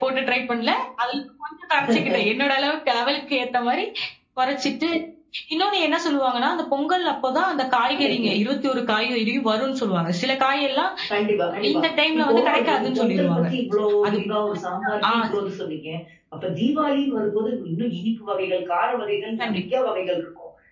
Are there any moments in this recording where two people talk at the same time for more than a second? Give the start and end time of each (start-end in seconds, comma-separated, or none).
12.2-13.4